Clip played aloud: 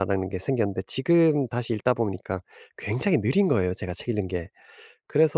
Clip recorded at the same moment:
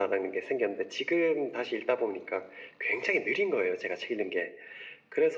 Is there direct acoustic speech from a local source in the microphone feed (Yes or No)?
No